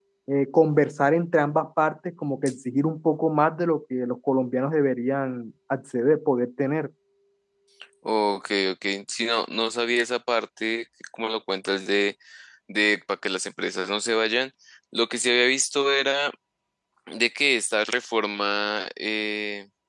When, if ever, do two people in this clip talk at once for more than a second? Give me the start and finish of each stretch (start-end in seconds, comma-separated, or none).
none